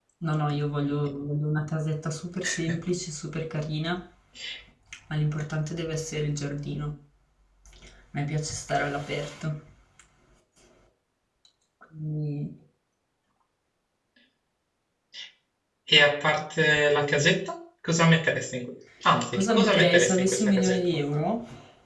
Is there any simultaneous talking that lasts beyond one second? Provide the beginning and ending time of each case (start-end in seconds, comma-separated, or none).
19.3-20.8